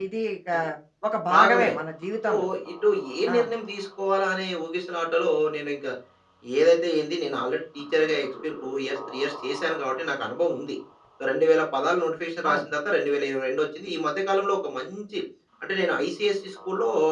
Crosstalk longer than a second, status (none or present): none